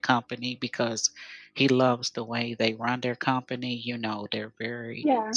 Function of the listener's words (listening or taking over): listening